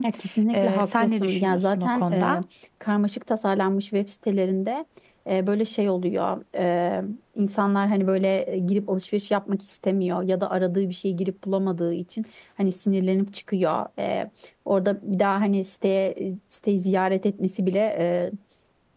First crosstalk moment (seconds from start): 0.5 s

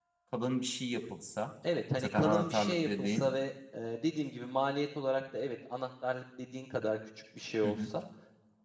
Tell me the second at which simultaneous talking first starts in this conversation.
2.0 s

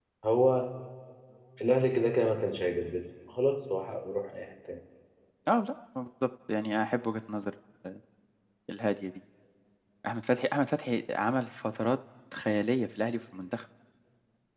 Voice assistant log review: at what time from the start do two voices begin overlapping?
none

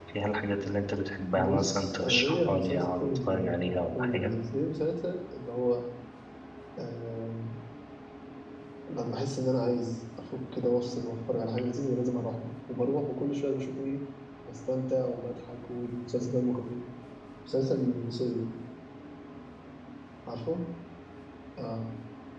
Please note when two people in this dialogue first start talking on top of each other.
1.3 s

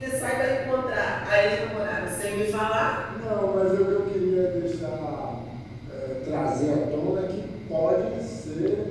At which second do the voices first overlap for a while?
none

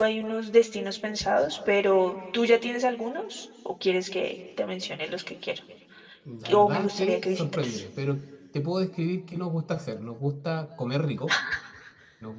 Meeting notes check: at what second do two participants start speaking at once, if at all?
6.5 s

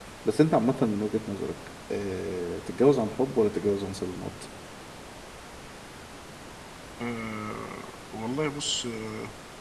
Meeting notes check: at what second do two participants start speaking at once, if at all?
none

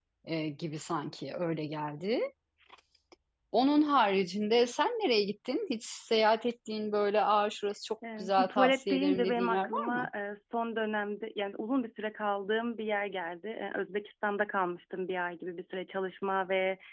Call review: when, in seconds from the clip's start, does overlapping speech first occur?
8.0 s

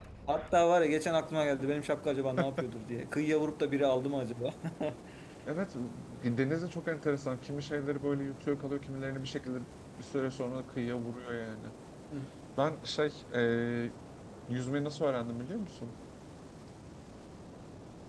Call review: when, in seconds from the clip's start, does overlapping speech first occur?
none

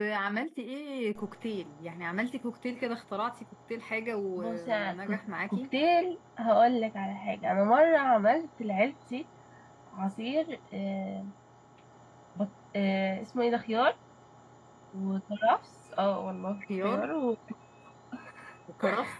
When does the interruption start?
4.4 s

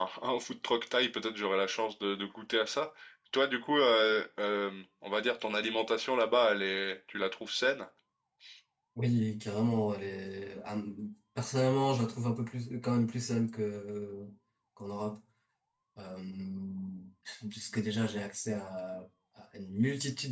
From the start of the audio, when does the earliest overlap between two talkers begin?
none

